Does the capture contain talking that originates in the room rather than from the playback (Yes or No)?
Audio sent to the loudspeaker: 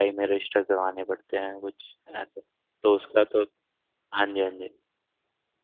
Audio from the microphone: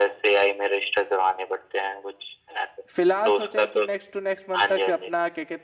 Yes